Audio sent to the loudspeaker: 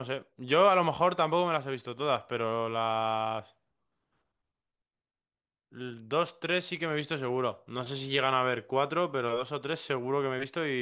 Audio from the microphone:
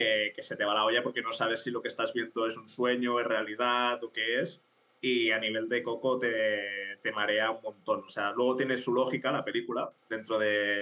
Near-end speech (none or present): present